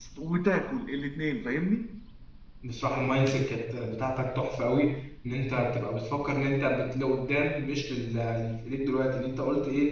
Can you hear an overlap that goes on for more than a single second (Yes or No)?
No